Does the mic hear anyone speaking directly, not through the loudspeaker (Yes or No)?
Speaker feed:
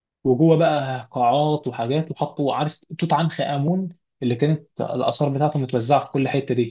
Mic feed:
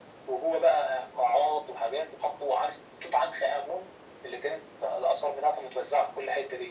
No